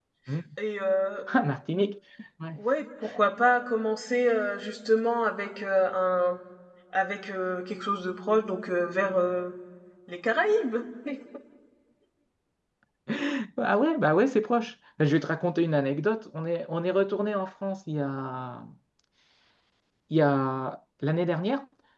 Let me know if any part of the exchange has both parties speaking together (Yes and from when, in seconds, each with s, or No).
No